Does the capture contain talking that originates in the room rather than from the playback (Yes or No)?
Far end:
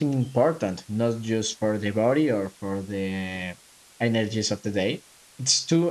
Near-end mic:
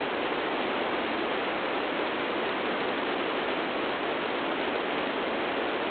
No